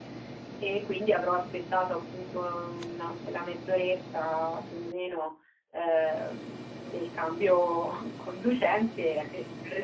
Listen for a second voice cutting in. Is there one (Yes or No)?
No